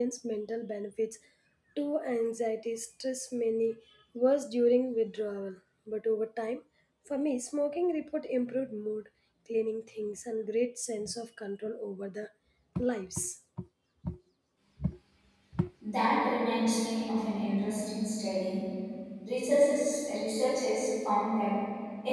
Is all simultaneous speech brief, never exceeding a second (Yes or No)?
Yes